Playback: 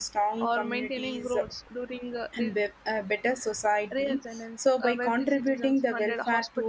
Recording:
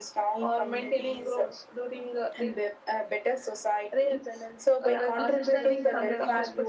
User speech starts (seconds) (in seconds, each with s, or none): 4.8 s